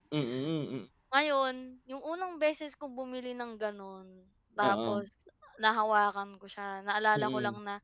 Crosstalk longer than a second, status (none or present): none